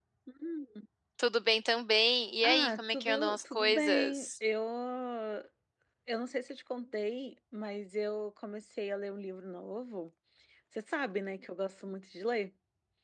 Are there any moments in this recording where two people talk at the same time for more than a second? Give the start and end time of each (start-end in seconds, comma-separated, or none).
2.4-4.3